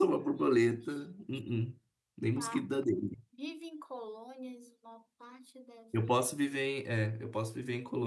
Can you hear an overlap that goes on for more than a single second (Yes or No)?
No